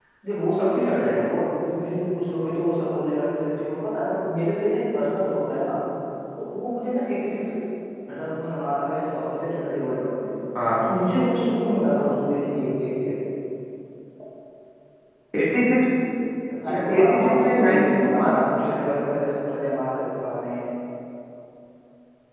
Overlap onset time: 17 s

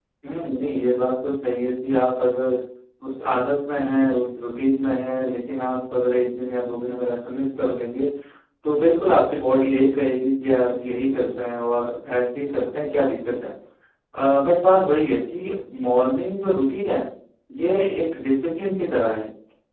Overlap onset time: none

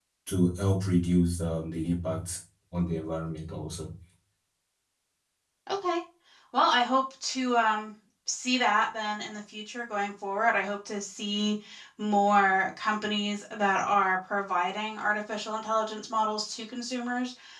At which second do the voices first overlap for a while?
none

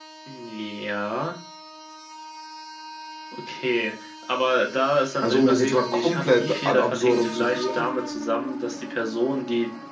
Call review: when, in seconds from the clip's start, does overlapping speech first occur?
5 s

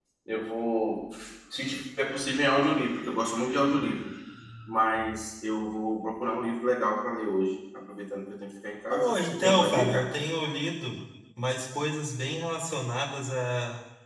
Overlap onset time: 9 s

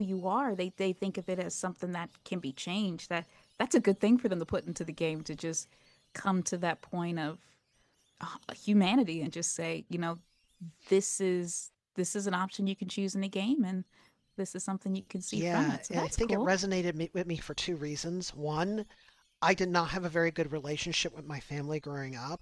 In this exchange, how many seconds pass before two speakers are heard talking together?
15 s

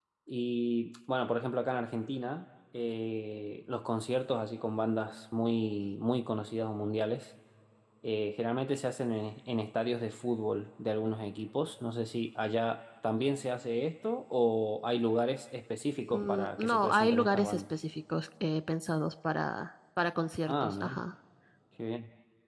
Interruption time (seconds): 16 s

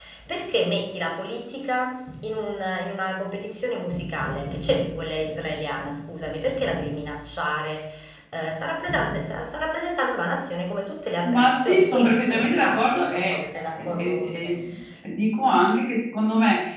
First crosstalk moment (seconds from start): 11 s

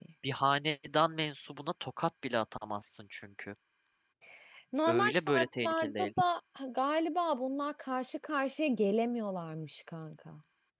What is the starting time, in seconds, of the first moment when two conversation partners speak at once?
5 s

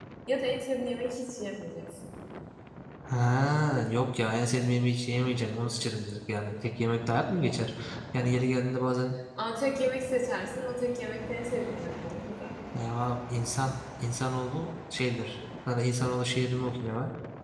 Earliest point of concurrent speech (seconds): none

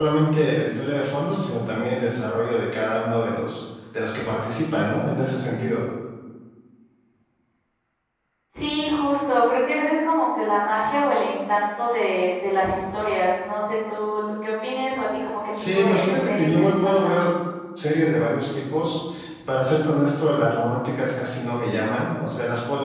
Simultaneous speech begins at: 16 s

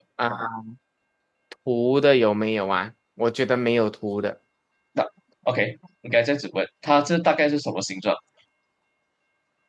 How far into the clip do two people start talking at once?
none

